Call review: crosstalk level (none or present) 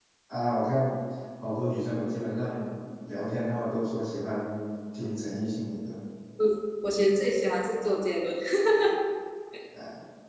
none